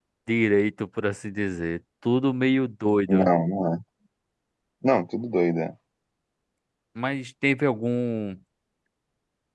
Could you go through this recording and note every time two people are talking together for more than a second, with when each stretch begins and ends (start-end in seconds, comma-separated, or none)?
none